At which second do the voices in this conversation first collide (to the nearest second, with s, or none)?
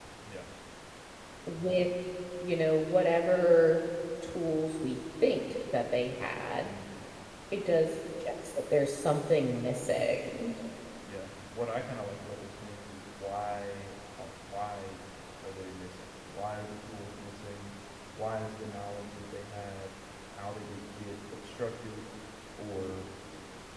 none